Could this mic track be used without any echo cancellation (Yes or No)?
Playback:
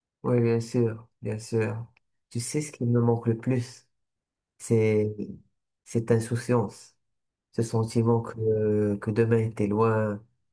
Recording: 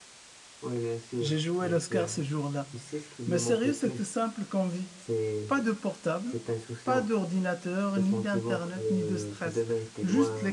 No